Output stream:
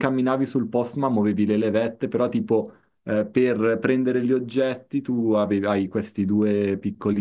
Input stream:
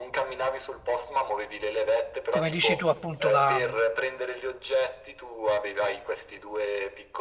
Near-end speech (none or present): present